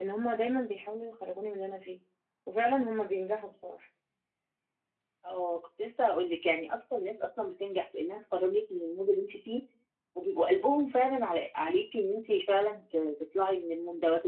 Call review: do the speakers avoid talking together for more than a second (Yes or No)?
Yes